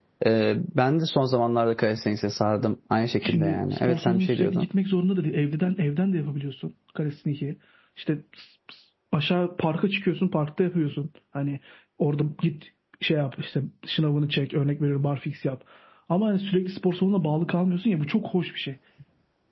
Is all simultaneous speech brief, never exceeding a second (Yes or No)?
No